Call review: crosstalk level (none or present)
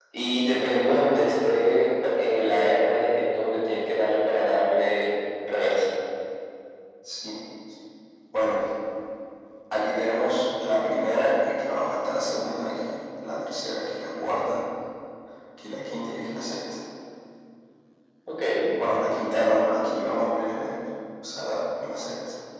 none